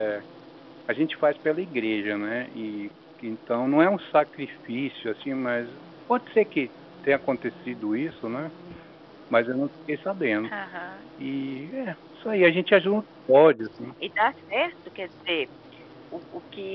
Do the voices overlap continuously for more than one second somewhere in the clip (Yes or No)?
No